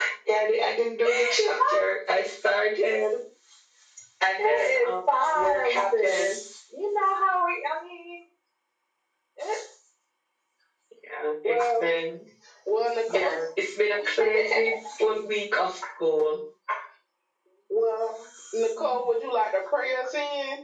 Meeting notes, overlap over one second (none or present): present